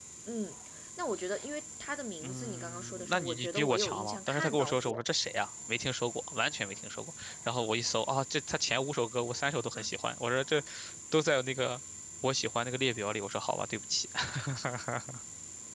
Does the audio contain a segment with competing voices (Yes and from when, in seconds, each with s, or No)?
Yes, from 2.2 s